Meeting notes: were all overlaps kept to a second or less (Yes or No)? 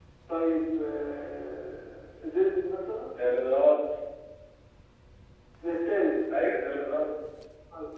Yes